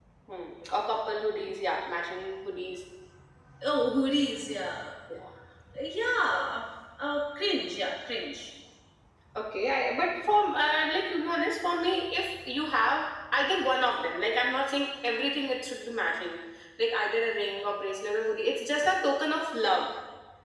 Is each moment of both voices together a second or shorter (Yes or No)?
Yes